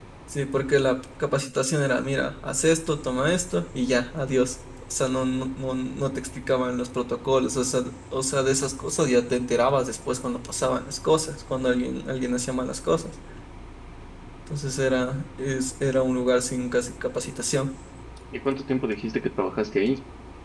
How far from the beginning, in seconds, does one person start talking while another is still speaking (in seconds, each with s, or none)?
none